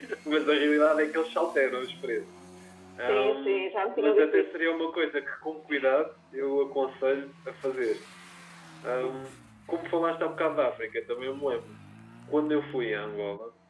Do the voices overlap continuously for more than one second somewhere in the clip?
Yes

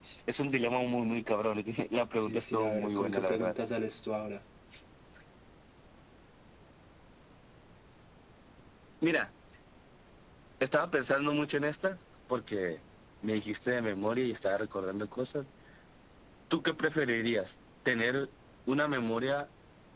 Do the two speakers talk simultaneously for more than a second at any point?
Yes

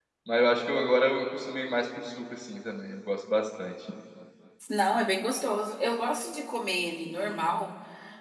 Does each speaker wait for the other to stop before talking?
Yes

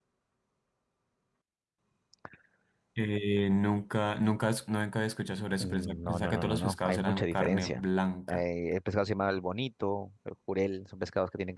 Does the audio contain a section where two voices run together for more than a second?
Yes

